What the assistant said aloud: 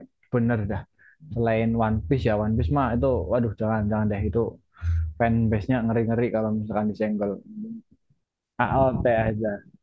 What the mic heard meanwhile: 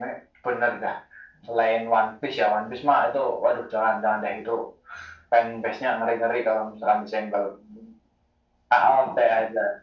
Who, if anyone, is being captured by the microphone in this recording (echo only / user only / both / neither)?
echo only